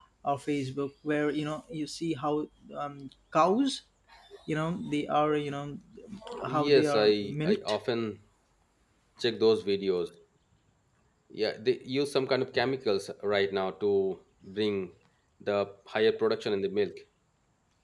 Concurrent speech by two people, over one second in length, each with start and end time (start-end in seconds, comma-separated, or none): 6.5-7.8